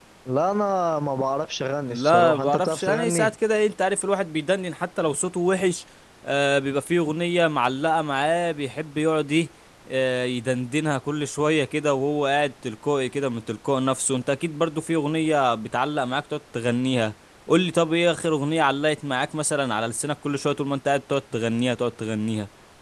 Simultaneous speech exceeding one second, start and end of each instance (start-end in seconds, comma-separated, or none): 1.9-3.3